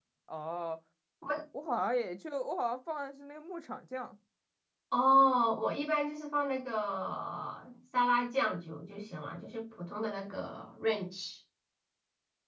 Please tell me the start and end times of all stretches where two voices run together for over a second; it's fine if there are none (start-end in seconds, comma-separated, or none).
none